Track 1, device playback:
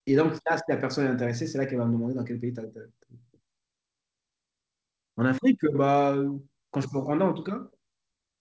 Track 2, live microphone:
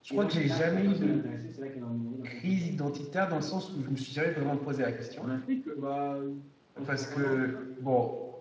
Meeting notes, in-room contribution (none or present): present